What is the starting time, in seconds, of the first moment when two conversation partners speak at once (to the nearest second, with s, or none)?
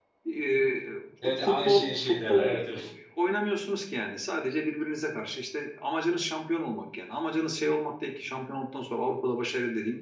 1 s